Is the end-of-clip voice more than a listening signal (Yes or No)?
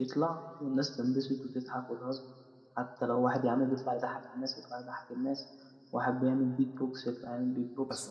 Yes